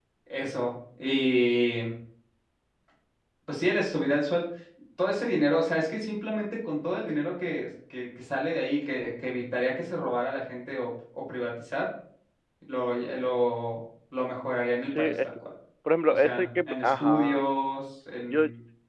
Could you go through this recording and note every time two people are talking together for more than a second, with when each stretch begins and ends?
16.1-17.5

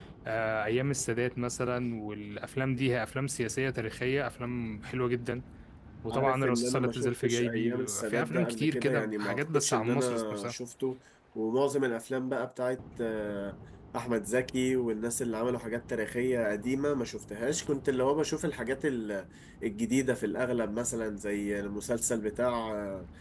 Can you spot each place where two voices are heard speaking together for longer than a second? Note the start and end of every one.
6.1-10.5

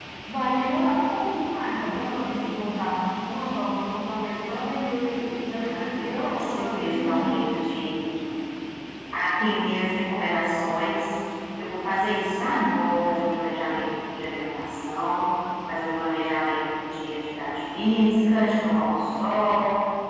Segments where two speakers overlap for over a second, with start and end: 5.6-7.4

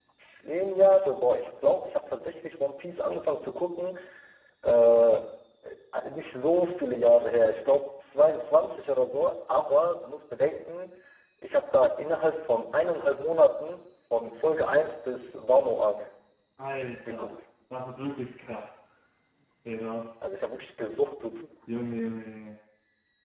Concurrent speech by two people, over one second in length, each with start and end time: none

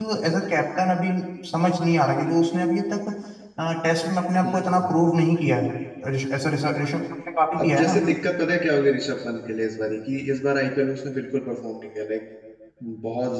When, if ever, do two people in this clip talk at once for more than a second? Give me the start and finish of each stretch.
none

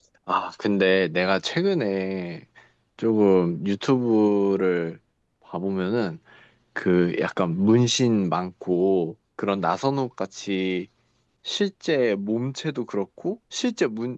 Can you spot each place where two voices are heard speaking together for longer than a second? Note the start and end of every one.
none

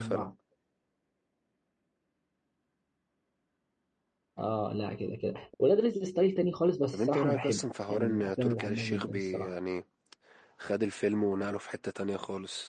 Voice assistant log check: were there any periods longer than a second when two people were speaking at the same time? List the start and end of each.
6.9-9.5

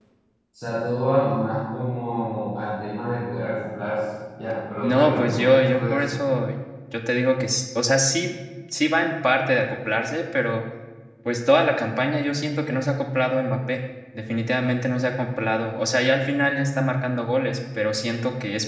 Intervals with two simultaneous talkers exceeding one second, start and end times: 4.8-6.2

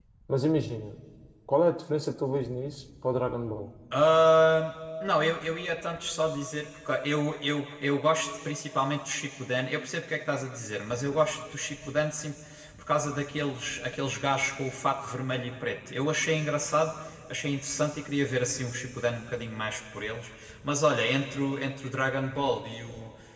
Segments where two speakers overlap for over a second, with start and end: none

